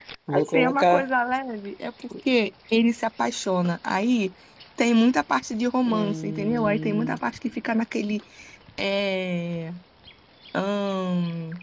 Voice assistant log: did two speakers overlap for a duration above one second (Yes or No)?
Yes